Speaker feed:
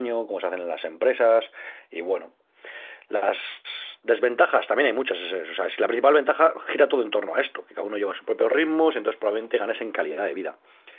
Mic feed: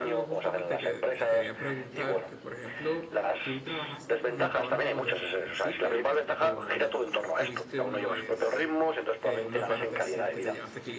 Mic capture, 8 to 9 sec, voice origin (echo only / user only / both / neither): both